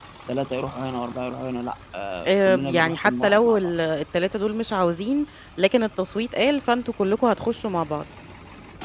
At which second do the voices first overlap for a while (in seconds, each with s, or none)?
2.2 s